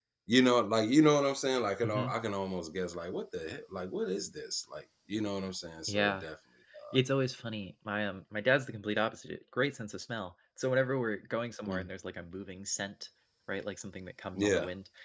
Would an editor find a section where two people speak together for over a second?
No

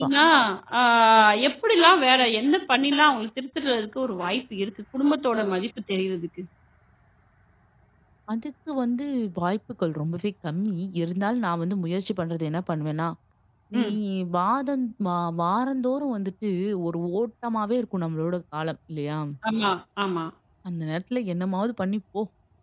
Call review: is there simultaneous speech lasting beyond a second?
No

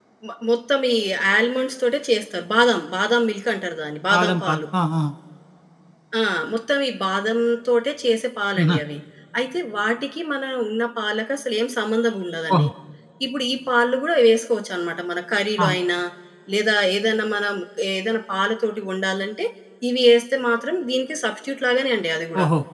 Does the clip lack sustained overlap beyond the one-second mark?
Yes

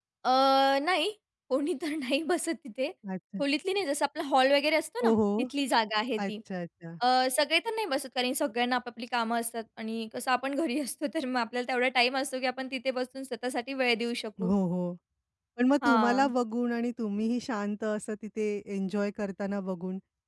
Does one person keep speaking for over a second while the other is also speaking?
No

